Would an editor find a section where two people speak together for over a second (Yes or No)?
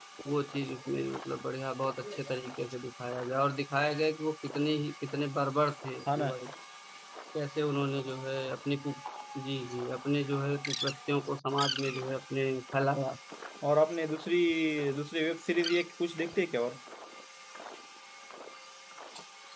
No